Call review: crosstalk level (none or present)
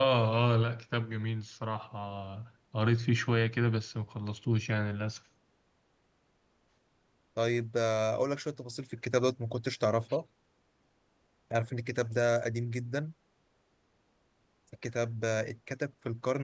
none